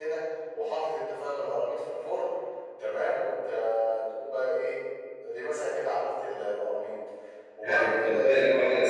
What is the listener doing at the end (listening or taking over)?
taking over